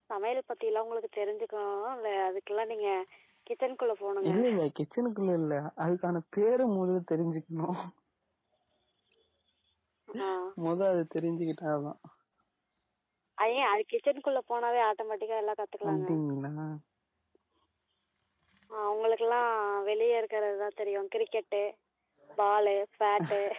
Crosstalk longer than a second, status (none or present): none